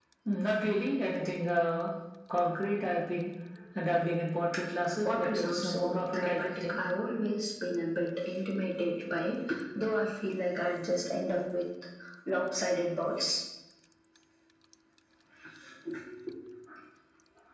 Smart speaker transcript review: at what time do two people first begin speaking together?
5 s

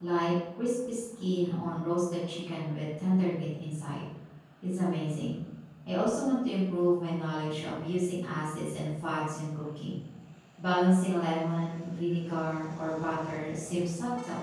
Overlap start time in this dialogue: none

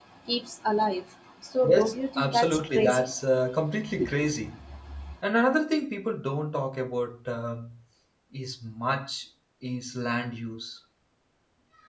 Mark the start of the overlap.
2 s

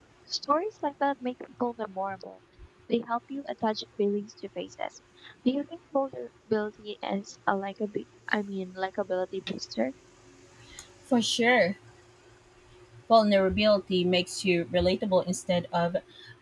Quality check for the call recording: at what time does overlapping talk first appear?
none

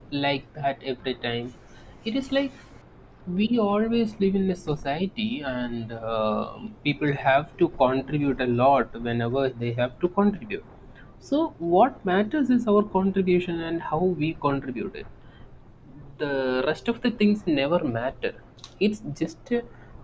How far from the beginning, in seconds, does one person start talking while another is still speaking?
none

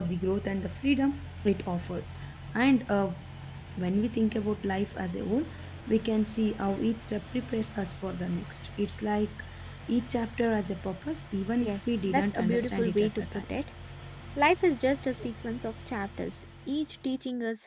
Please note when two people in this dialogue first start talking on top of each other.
12 s

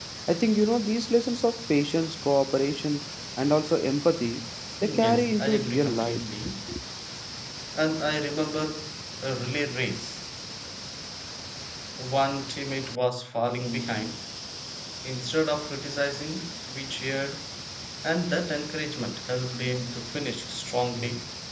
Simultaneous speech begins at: 5 s

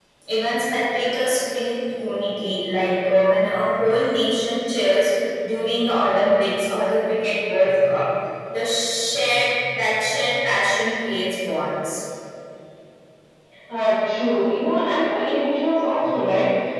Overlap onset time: none

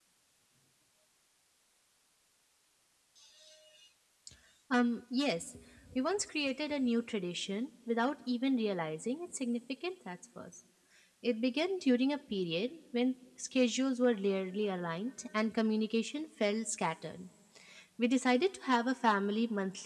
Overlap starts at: none

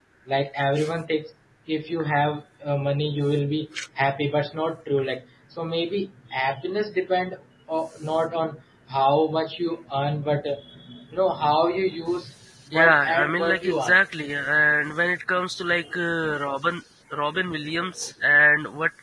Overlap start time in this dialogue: 13 s

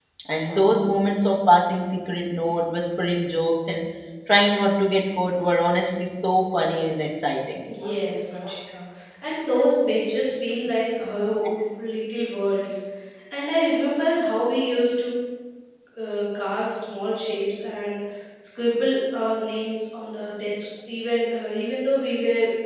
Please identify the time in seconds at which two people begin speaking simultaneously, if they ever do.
none

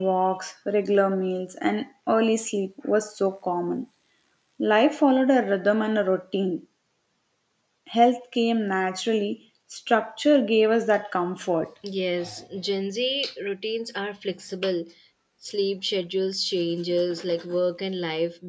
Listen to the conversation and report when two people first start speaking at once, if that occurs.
none

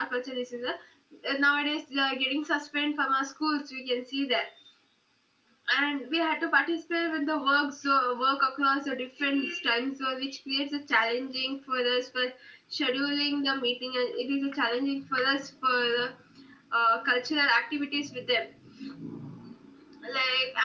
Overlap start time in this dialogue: none

